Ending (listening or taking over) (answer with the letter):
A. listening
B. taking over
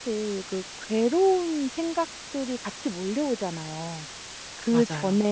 A